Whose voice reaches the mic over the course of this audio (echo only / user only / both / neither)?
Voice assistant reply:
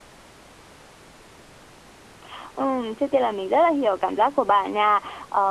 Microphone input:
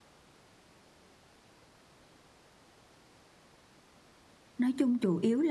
user only